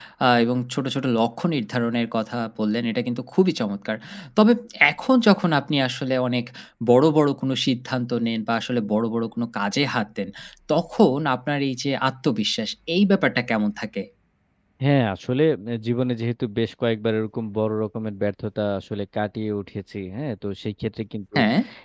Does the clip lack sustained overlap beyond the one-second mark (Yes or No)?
Yes